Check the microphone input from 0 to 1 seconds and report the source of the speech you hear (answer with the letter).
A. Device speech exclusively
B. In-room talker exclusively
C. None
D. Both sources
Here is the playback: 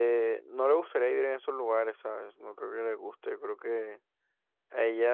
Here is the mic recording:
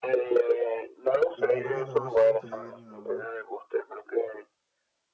A